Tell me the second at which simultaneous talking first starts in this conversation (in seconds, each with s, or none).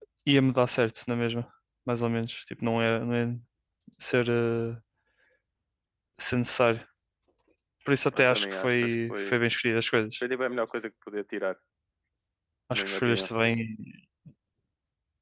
8.1 s